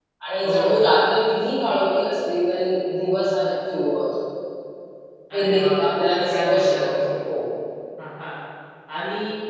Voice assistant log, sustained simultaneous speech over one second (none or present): present